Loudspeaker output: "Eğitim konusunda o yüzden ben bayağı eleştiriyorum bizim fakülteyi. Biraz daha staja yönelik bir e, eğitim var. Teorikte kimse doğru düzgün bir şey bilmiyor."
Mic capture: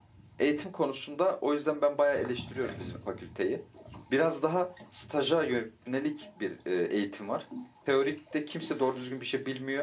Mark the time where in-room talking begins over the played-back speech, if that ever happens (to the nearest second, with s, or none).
none